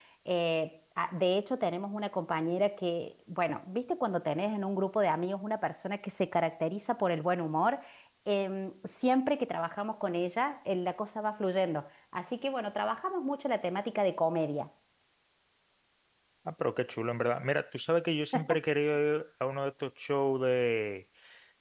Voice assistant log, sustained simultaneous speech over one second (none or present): none